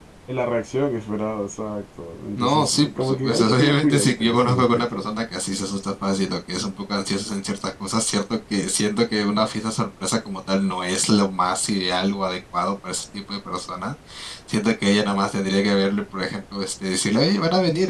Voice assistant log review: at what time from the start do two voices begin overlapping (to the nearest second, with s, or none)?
2 s